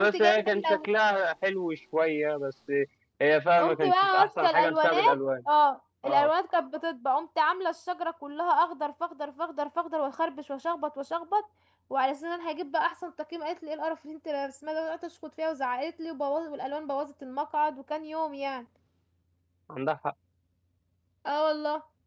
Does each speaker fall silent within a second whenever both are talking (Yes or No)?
No